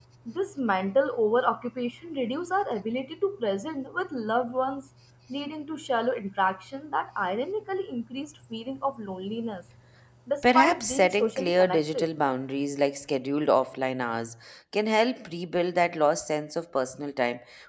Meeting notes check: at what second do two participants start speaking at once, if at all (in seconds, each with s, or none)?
10.4 s